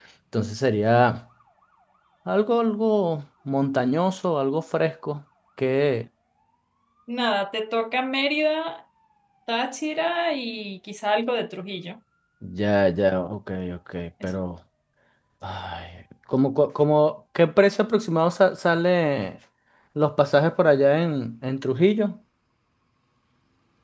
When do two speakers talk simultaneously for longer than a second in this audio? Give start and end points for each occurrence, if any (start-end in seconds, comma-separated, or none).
none